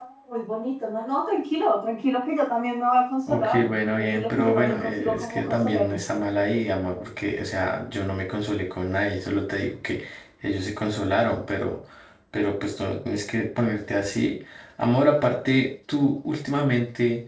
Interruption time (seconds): 3.3 s

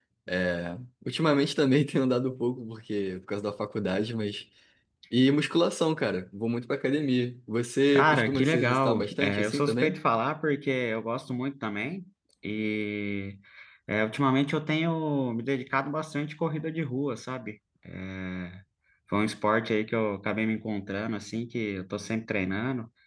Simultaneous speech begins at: 7.9 s

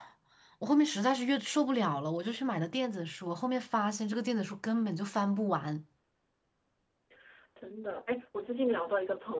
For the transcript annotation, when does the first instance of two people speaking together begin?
none

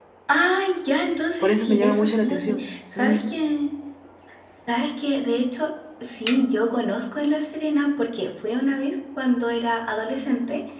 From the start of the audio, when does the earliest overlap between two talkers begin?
1.4 s

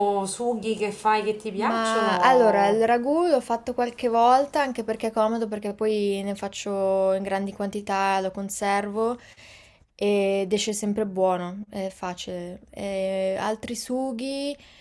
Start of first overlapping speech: 1.6 s

